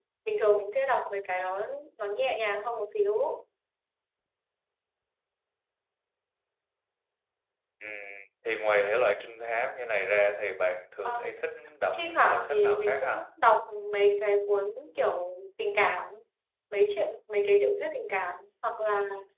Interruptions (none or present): present